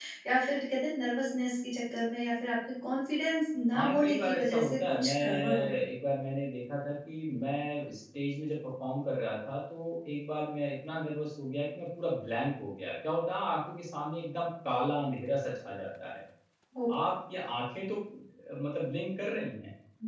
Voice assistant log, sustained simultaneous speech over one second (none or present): present